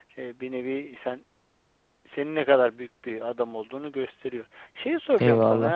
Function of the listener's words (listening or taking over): listening